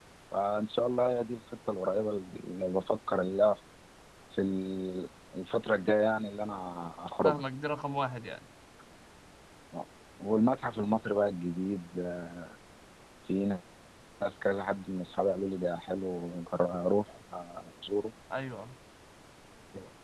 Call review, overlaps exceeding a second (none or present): none